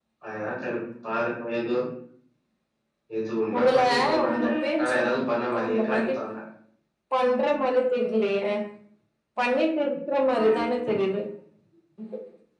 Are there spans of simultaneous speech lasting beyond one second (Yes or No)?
Yes